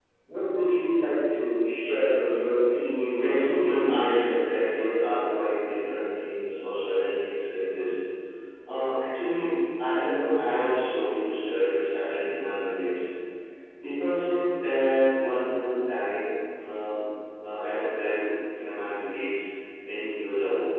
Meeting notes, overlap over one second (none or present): present